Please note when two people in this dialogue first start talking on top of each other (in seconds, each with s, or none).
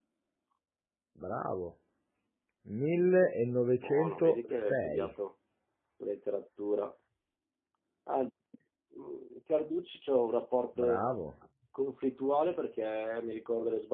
3.8 s